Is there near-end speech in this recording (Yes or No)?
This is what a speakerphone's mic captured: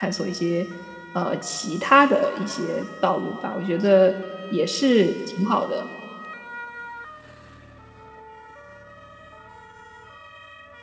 Yes